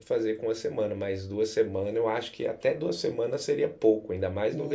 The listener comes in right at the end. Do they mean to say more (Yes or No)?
Yes